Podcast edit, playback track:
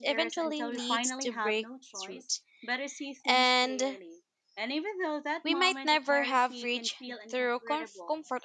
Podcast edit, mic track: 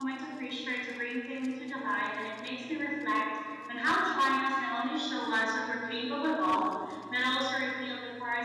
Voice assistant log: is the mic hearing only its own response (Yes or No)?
No